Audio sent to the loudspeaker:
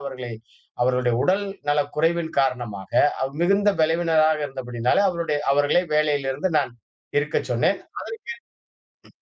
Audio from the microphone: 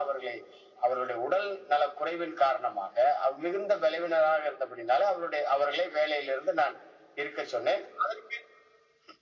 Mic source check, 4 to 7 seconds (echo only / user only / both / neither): echo only